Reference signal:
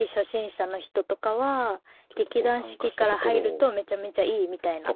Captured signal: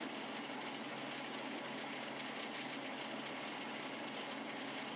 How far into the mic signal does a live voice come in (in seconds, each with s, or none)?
none